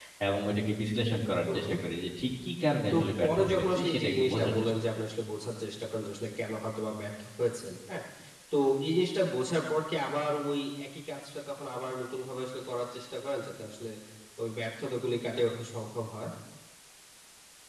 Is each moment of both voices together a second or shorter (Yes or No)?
No